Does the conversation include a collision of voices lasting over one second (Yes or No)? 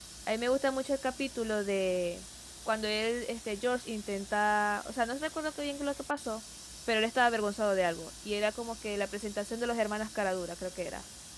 No